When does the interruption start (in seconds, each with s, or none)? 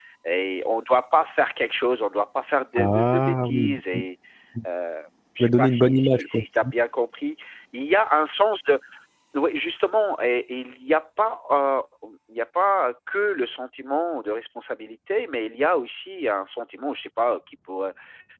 2.8 s